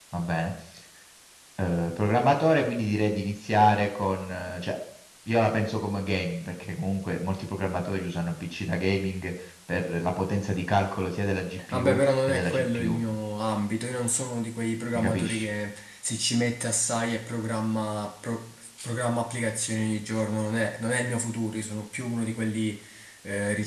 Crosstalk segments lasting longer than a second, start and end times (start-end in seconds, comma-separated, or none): 11.7-13.0